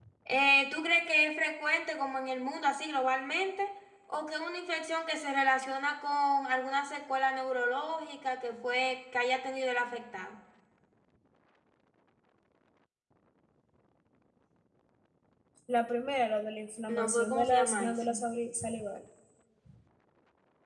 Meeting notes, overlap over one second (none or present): present